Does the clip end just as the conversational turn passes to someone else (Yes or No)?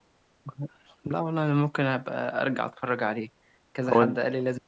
No